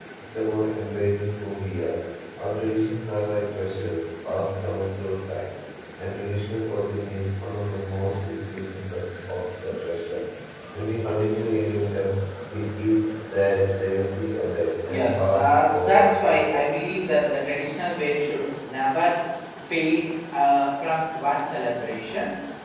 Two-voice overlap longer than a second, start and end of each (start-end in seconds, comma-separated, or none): 14.9-16.7